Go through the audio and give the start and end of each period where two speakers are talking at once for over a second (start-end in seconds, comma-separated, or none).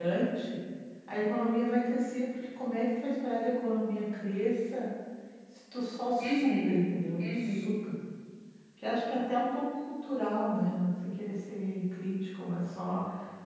6.2-7.8